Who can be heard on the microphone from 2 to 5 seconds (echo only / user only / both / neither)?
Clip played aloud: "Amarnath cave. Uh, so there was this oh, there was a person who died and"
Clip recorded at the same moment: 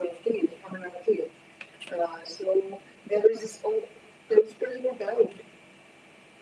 echo only